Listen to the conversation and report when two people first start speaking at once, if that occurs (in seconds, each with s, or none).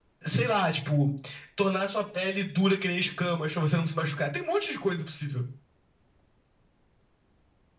none